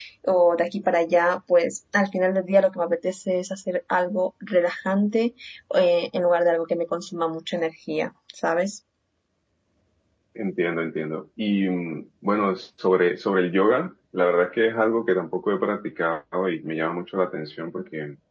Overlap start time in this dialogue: none

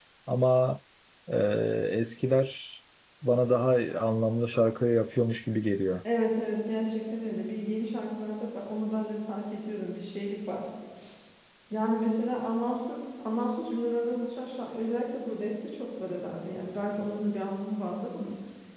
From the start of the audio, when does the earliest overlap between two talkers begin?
none

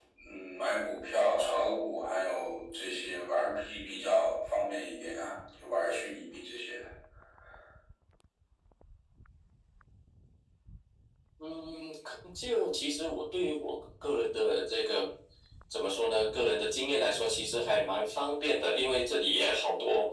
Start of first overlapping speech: none

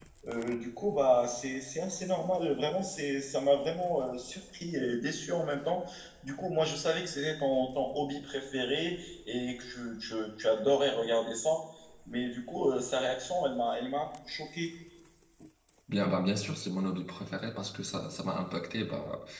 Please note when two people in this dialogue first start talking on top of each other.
none

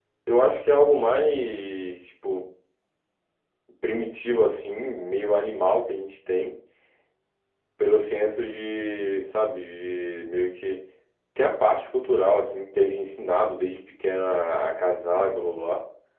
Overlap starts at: none

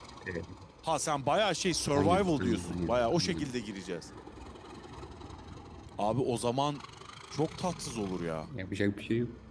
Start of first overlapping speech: 1.9 s

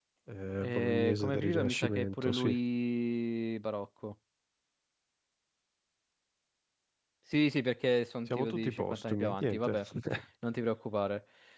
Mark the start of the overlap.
0.6 s

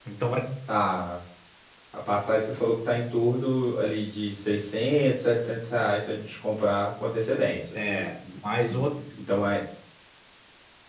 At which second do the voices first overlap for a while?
none

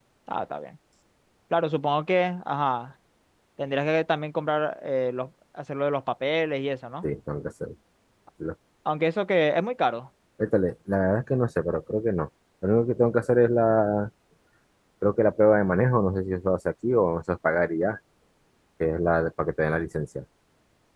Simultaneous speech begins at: none

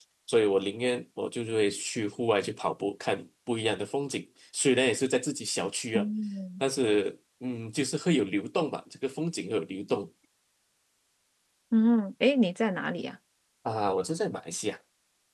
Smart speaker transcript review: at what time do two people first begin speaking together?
none

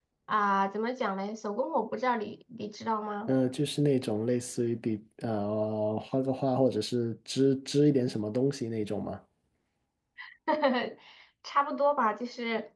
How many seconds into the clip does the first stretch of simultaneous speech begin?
none

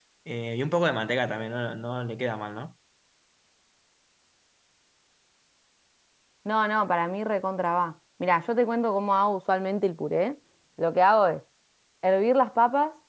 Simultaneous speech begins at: none

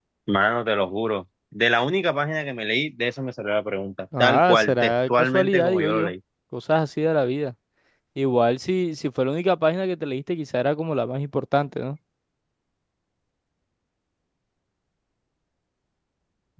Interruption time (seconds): 4.1 s

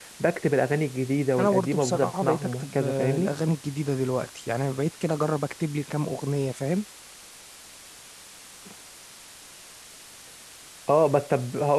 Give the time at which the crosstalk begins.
1.4 s

